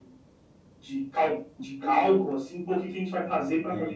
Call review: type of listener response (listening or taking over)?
listening